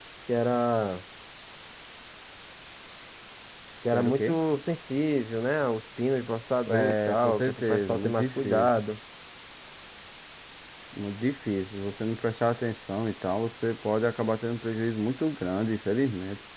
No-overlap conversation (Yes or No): No